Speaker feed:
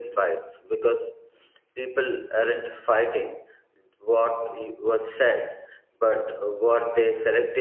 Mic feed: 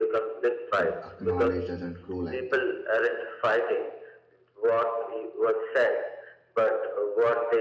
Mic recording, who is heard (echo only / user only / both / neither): both